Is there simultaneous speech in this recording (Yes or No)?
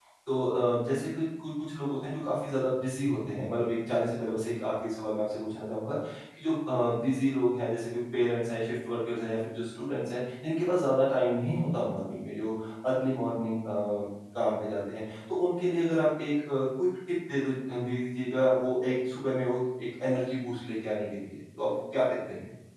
No